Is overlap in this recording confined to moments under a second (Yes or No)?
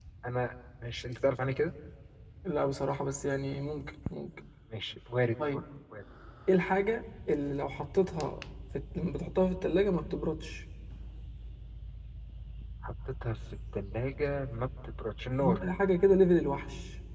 Yes